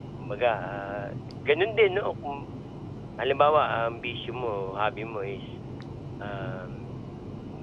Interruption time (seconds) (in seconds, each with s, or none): none